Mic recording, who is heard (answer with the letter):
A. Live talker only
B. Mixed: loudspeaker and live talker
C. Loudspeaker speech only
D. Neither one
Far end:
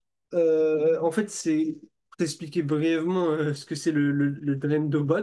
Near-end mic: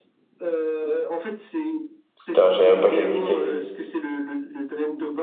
B